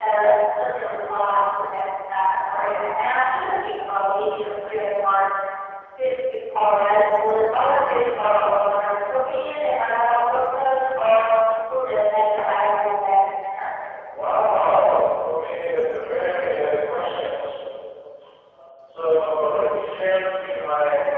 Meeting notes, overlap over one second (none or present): none